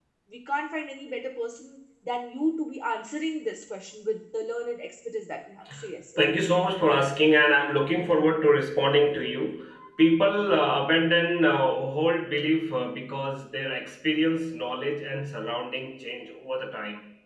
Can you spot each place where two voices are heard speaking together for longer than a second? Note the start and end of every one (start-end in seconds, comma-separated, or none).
none